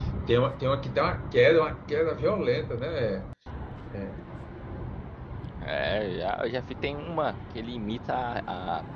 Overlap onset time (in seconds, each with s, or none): none